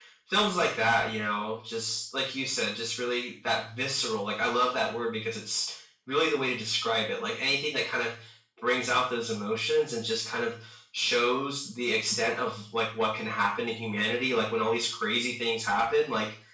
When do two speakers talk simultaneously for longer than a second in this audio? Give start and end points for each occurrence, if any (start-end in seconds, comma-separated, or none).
none